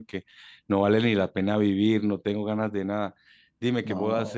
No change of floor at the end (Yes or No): Yes